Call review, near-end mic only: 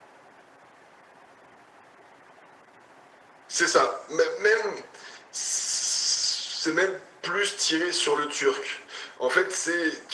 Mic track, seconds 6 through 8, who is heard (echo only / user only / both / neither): echo only